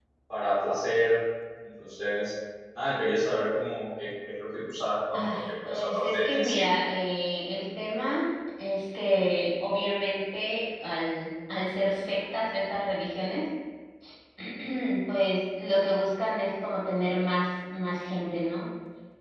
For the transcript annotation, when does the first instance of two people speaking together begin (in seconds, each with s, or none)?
5.1 s